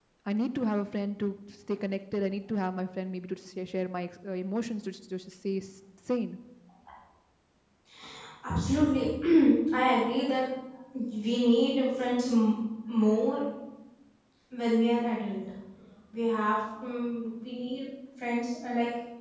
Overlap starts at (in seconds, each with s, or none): none